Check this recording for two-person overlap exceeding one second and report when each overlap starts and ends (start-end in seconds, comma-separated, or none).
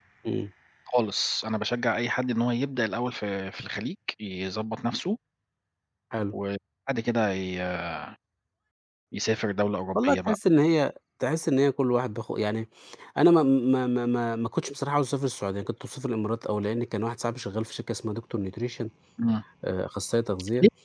none